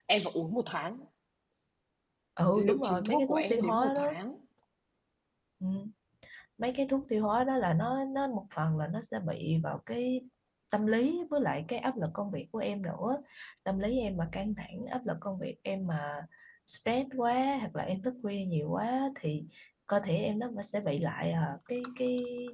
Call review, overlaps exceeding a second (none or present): present